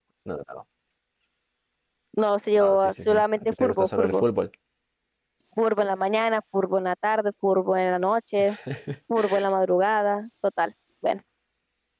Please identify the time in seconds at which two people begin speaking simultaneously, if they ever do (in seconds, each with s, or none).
2.5 s